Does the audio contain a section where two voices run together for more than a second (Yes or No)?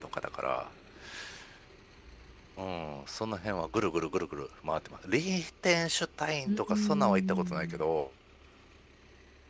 Yes